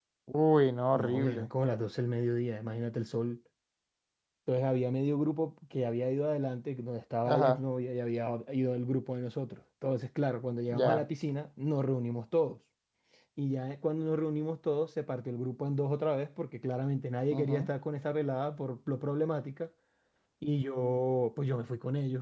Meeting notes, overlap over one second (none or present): none